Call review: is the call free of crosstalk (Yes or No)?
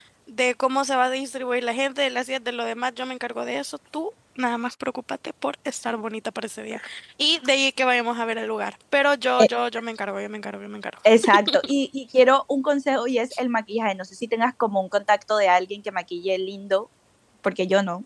Yes